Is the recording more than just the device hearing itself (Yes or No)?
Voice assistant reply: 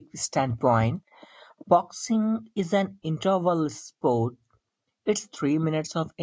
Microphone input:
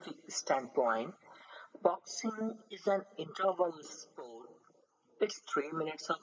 No